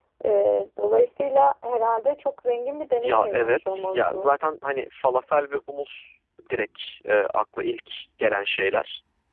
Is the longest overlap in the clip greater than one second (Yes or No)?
Yes